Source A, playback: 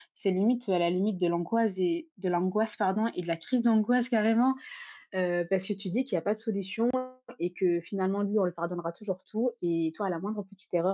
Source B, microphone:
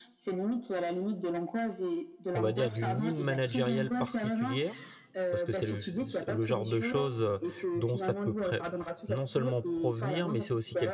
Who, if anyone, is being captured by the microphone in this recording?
both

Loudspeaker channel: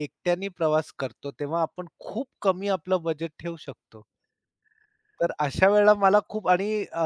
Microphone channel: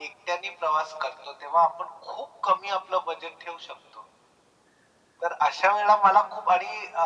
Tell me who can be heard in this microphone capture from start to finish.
echo only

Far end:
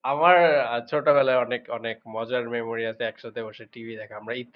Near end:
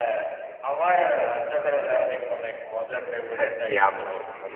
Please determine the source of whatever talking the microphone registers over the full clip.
both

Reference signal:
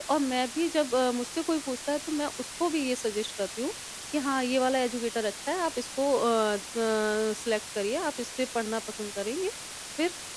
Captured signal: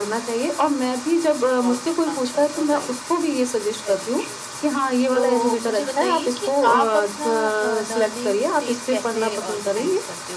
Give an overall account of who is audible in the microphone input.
both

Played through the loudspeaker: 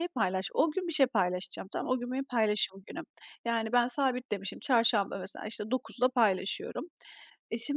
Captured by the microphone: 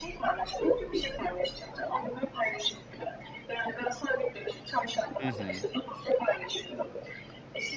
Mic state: both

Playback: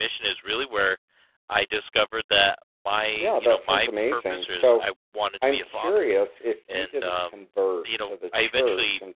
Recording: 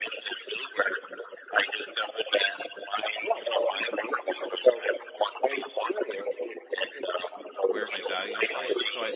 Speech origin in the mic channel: both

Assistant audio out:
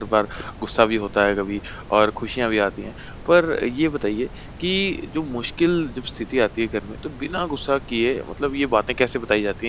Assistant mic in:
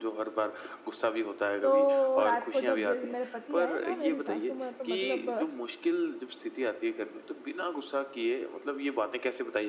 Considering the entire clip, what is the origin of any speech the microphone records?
both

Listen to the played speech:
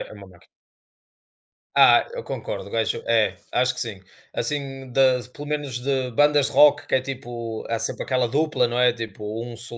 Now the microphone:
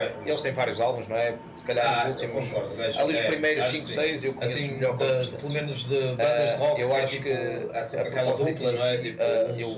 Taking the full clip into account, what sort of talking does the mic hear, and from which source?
both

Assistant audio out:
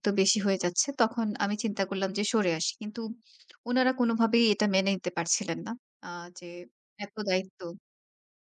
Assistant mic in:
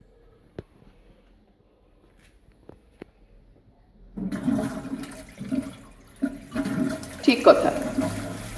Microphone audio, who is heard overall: user only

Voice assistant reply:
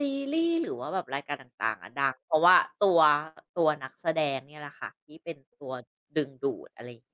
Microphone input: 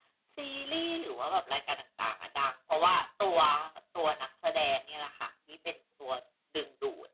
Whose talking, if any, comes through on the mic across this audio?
echo only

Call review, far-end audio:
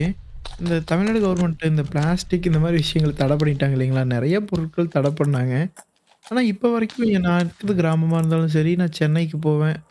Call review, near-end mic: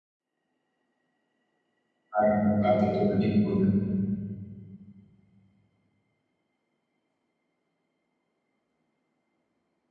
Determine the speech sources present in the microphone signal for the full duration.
user only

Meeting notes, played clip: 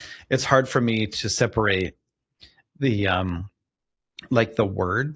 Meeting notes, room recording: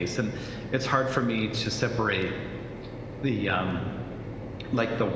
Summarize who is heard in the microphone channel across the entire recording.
echo only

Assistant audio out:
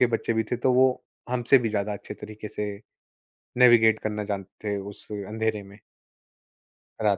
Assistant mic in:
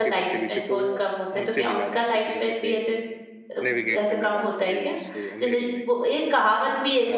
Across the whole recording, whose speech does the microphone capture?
both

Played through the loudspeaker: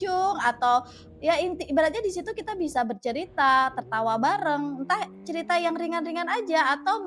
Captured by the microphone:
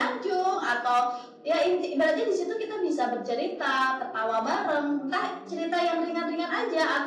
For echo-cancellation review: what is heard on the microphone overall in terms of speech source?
echo only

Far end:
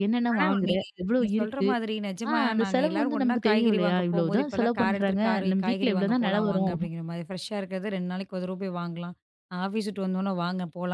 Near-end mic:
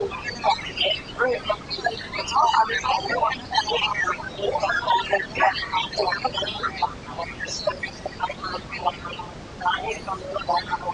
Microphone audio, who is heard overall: echo only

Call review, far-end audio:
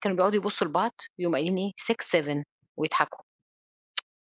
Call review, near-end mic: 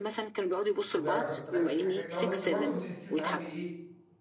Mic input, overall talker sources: both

